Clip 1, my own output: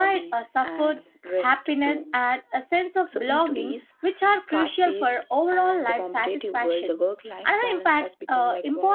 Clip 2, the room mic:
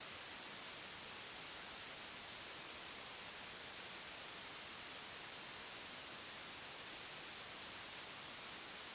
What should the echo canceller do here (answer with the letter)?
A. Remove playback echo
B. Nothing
B